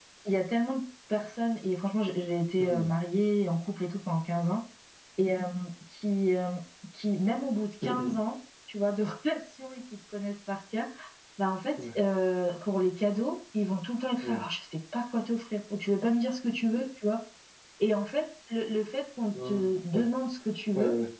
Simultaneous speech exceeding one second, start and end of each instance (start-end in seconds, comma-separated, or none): none